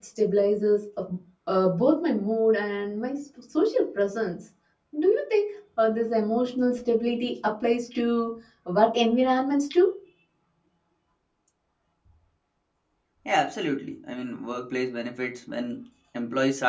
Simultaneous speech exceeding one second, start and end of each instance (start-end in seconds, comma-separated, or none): none